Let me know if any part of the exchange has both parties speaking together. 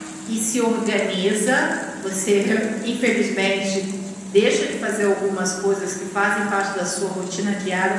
No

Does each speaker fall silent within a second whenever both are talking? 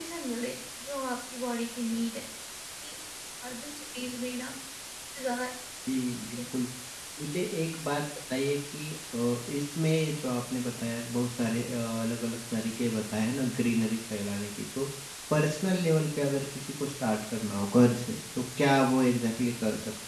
Yes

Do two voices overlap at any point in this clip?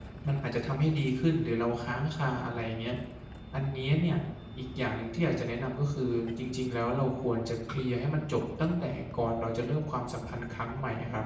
No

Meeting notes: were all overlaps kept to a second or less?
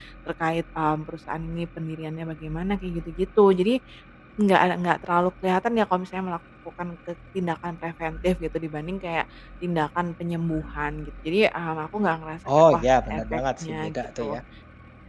No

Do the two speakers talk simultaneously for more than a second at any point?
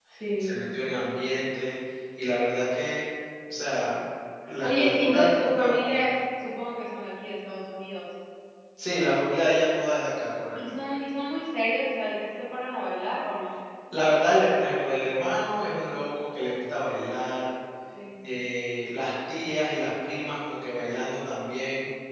Yes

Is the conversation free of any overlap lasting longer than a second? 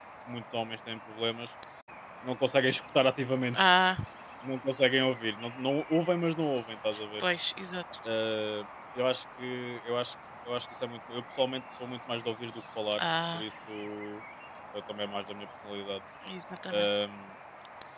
Yes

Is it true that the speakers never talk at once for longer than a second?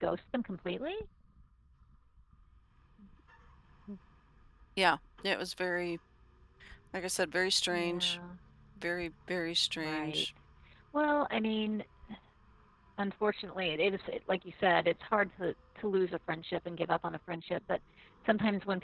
Yes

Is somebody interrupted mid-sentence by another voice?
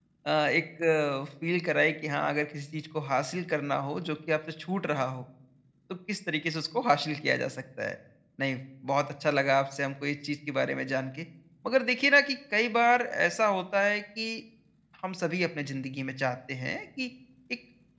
No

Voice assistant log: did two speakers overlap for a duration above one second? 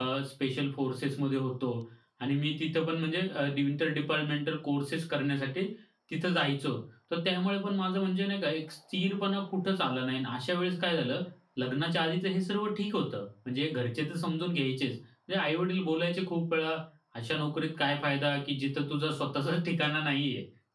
No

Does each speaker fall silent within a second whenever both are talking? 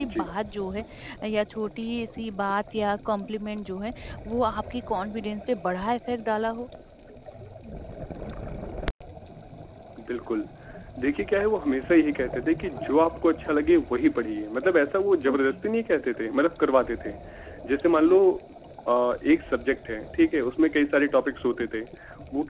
Yes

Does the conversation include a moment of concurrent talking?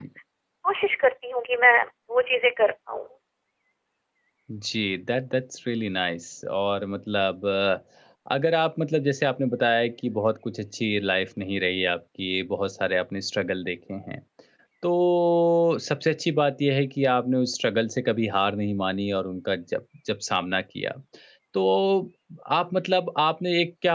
No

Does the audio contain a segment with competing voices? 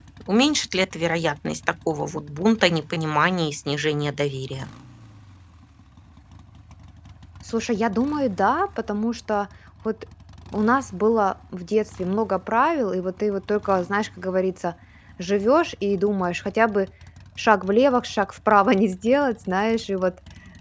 No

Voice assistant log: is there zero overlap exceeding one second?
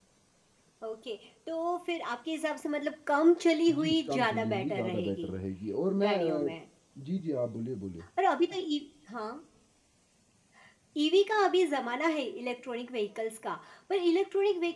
No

